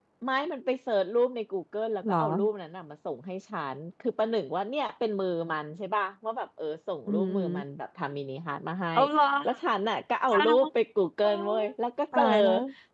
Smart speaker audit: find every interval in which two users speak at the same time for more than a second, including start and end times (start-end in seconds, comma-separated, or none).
none